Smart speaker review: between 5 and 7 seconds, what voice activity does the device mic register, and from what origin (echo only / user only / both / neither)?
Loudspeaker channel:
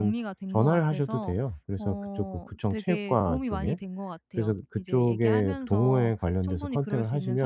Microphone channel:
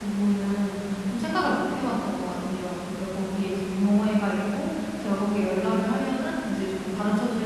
user only